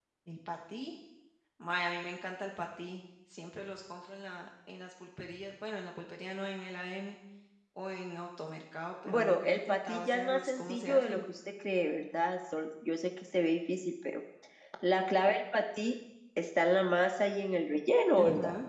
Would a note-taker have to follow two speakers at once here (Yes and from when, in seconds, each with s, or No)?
Yes, from 9.1 s